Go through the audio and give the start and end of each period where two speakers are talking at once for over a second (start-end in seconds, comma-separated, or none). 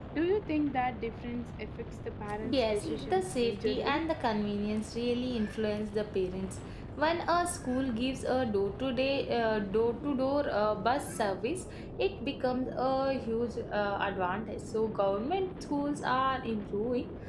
2.4-4.0